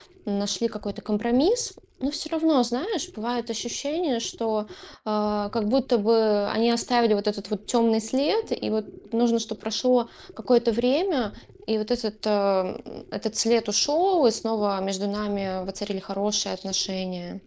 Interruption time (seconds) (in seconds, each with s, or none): none